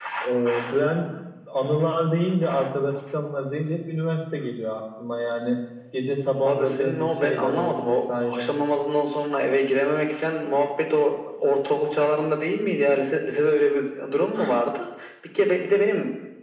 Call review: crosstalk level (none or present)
present